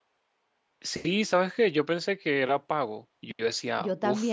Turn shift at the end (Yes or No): No